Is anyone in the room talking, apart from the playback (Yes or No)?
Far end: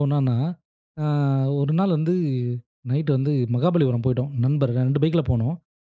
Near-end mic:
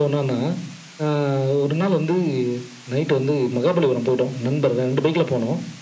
No